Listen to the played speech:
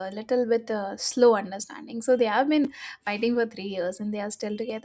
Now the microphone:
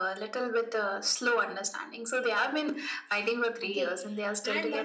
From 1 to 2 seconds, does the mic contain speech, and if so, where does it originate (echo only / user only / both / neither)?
echo only